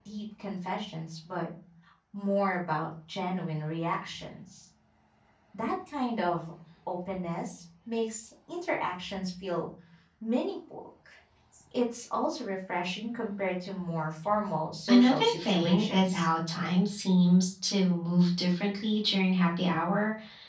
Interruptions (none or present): present